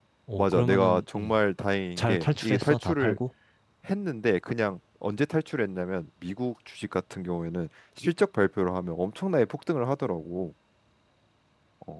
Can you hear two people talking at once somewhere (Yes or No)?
Yes